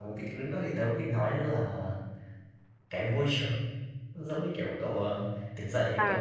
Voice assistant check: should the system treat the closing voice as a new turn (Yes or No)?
Yes